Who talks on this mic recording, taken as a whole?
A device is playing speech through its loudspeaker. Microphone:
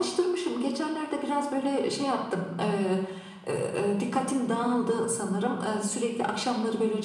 echo only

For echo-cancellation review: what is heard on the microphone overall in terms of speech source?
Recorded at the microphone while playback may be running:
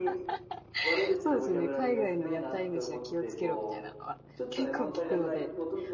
both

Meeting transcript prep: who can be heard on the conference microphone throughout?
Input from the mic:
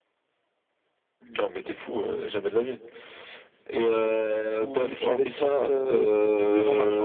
both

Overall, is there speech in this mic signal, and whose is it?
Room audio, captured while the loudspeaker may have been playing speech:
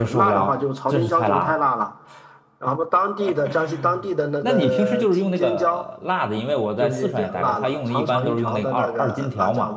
both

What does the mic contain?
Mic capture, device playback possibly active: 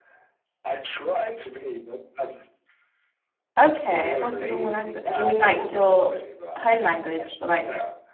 both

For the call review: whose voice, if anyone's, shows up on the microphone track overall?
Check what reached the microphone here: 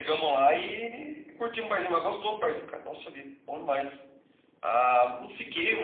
echo only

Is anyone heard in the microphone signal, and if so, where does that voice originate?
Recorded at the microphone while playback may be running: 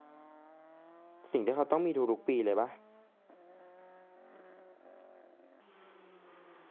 user only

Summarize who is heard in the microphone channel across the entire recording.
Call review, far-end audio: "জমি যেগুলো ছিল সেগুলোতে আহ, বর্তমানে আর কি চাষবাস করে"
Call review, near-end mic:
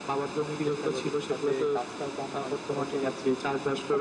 both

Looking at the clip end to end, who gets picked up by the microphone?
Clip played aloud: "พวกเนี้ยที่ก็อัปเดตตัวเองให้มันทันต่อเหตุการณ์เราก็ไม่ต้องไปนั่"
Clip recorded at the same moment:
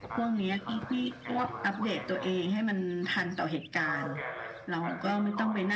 both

